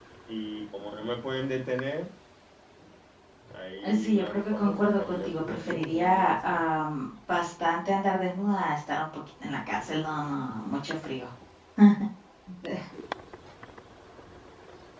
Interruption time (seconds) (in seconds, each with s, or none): 3.8 s